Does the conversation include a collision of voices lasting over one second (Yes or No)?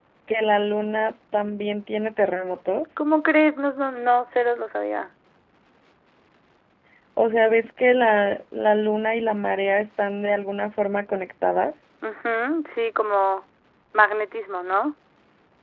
No